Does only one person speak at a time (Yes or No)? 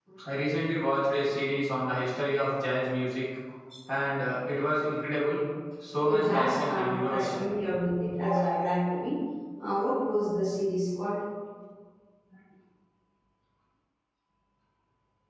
No